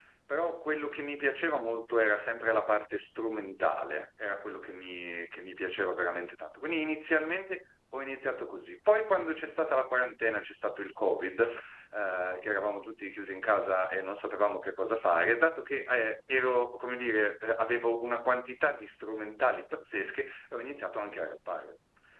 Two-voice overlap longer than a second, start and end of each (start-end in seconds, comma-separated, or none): none